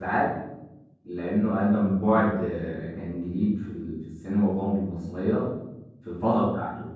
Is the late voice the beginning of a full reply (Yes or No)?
No